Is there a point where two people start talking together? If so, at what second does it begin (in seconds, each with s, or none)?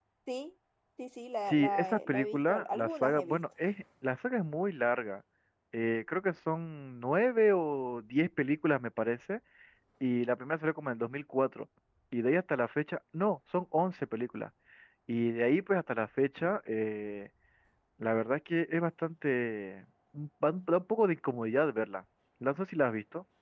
1.4 s